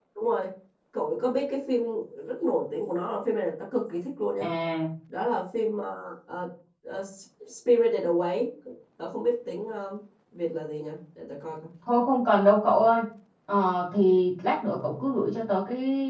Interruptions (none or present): none